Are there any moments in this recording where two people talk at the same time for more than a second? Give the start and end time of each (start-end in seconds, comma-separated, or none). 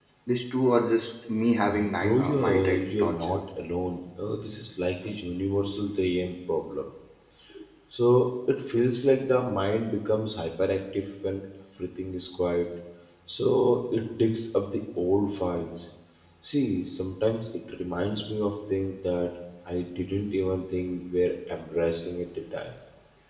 1.6-3.4